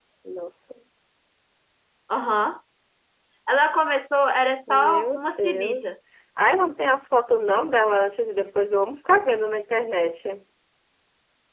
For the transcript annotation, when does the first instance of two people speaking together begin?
4.7 s

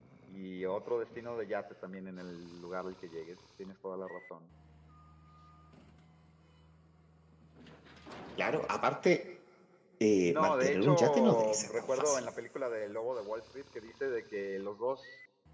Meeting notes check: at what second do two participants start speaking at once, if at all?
10.2 s

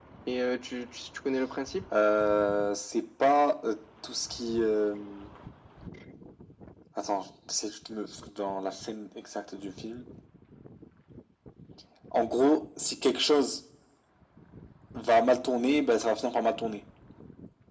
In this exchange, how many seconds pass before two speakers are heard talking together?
none

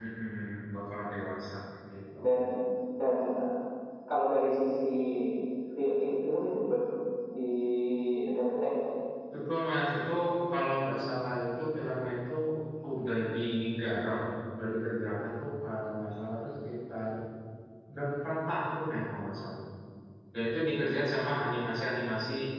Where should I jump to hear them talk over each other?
none

